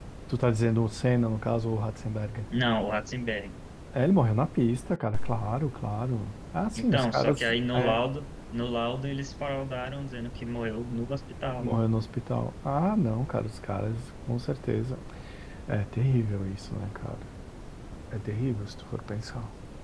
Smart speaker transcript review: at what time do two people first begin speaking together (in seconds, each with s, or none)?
6.8 s